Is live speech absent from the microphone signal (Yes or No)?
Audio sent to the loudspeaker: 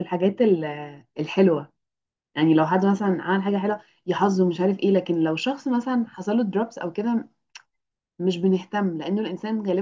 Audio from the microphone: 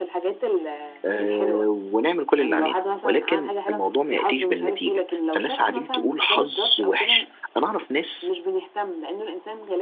No